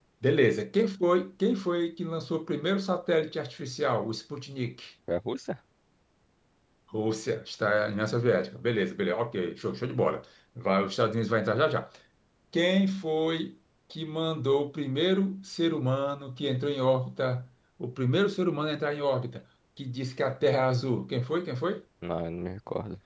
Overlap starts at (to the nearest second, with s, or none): none